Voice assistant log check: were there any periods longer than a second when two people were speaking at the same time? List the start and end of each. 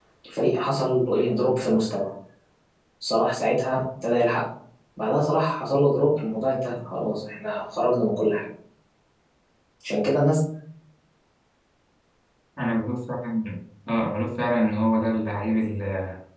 none

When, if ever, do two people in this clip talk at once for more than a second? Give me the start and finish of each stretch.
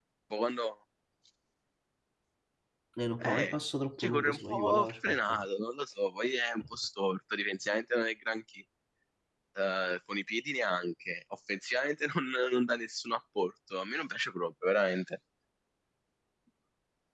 4.0-5.4

